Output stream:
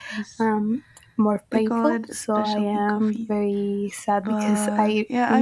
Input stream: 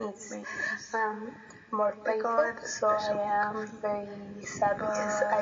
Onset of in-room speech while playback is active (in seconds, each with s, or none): none